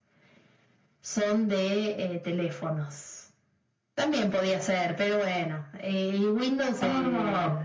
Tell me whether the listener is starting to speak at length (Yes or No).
Yes